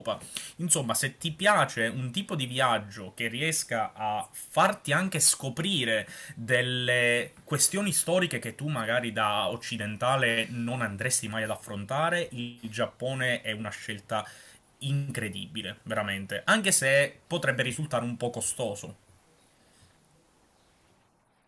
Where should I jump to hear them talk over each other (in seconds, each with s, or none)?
none